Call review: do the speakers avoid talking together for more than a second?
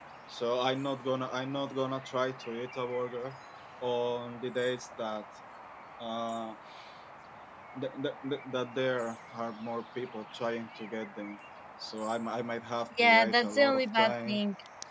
No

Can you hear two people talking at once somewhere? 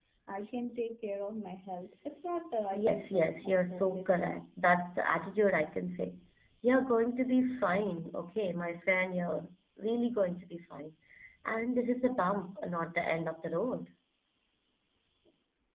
Yes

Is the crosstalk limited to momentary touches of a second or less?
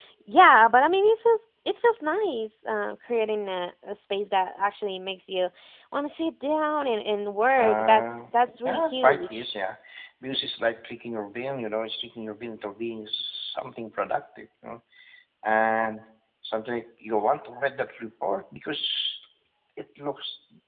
No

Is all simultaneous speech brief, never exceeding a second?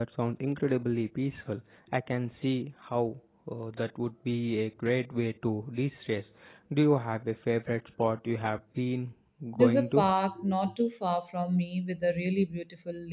Yes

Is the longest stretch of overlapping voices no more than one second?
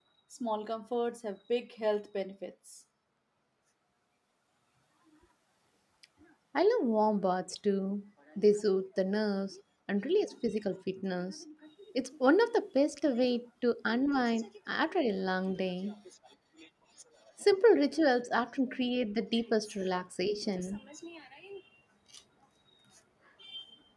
Yes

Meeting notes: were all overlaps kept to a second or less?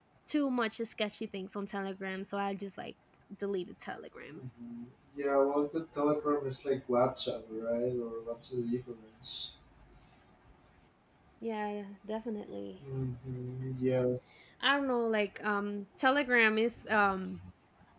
Yes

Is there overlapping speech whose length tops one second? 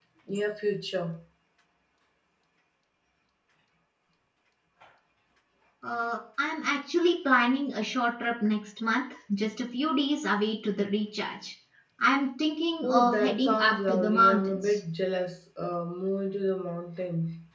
Yes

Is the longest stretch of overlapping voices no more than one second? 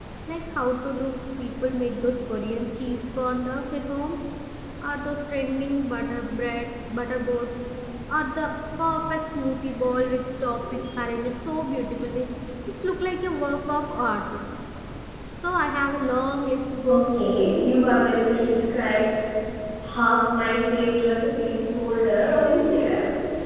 Yes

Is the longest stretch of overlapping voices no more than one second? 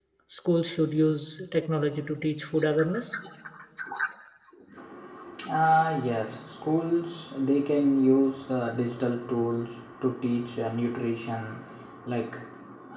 Yes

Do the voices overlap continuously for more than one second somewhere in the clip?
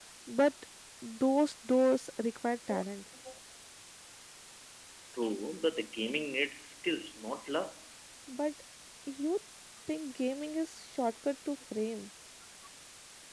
No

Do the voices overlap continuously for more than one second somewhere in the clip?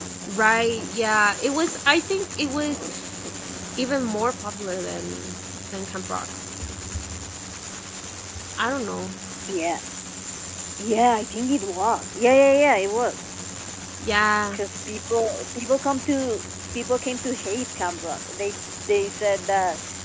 No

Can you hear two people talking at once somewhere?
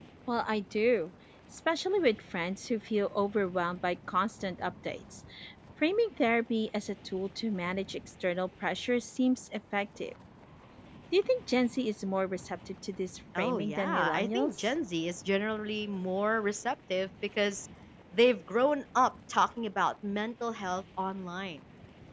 Yes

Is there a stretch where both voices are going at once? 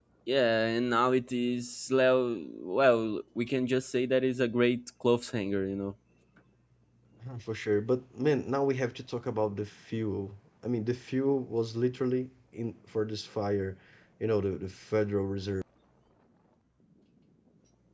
No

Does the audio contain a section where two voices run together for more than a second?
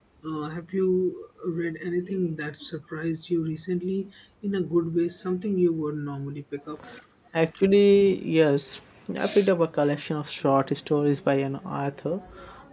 No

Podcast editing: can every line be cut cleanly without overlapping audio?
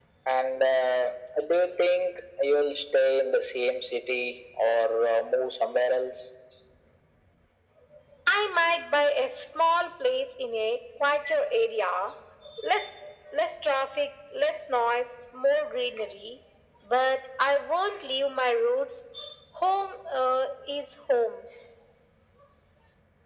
Yes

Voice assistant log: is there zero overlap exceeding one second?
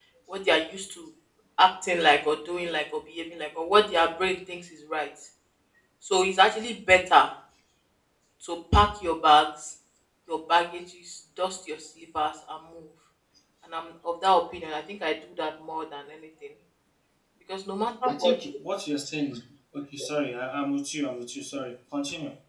Yes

